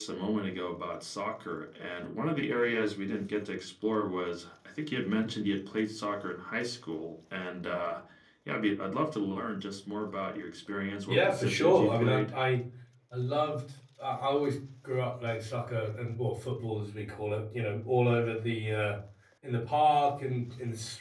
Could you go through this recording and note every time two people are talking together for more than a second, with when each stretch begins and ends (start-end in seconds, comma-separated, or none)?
11.1-12.3